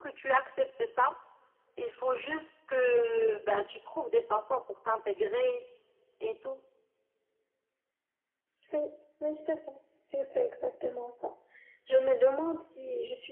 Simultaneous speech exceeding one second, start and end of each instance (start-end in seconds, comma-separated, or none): none